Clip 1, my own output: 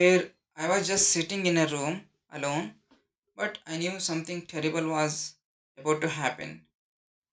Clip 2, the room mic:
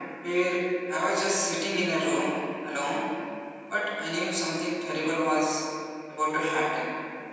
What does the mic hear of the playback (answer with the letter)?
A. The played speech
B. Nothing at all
A